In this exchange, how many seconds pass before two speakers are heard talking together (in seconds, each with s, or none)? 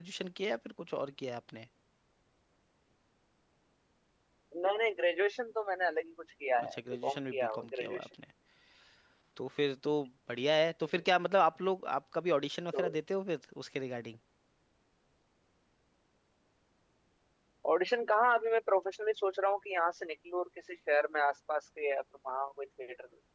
6.6 s